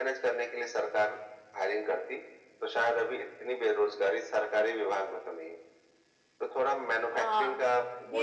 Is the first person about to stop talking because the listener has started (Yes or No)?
Yes